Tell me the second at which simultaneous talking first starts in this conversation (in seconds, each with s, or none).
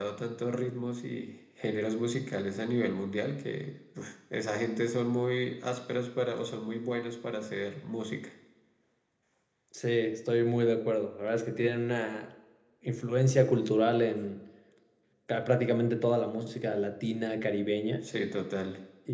none